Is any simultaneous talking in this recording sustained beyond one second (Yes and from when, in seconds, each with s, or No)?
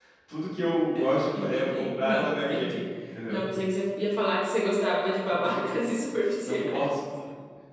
Yes, from 1.3 s